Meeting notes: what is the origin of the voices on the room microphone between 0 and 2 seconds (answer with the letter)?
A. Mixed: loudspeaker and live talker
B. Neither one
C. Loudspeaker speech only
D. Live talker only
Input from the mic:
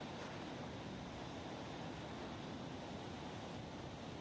B